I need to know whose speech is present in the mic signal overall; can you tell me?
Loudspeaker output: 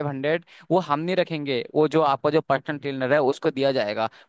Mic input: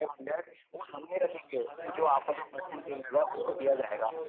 both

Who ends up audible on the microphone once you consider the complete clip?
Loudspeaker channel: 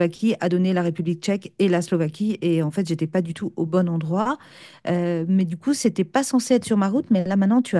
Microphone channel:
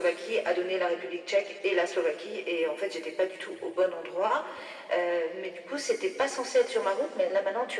echo only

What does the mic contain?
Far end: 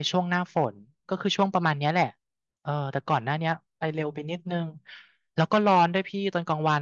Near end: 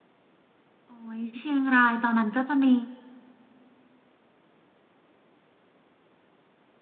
user only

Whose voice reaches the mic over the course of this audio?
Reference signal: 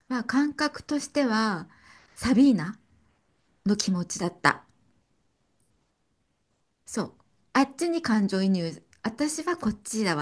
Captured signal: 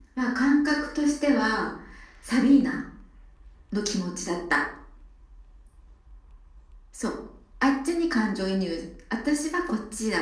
echo only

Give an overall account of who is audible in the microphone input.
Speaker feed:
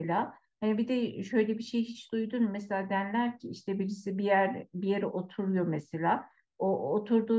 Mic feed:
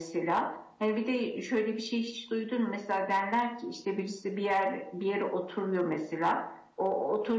echo only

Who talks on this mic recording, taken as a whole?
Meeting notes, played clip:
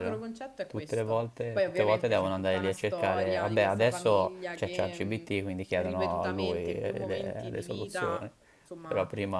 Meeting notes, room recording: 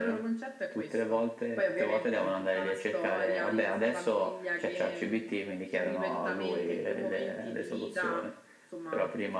echo only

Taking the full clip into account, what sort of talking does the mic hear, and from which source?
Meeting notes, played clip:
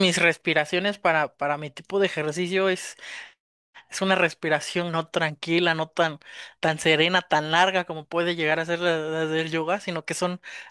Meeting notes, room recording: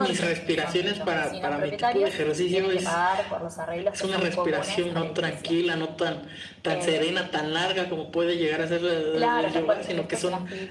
both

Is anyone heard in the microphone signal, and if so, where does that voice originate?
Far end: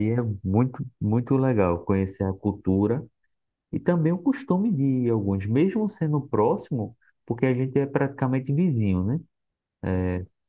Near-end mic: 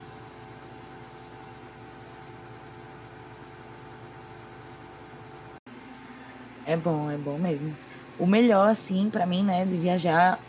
user only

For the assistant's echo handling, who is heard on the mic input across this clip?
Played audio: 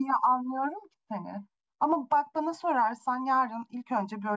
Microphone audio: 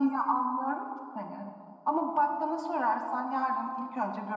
echo only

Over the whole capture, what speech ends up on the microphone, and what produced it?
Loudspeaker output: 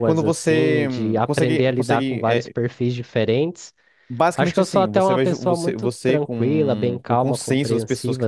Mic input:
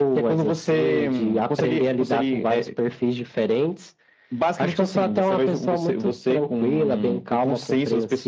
echo only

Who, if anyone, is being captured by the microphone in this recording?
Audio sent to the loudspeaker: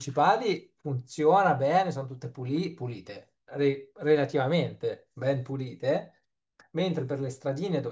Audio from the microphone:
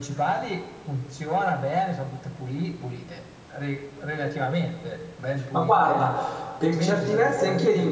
both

